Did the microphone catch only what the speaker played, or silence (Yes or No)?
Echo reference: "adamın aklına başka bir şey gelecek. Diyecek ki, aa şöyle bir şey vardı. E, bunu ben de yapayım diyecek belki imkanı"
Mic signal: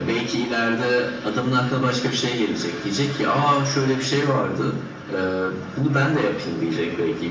Yes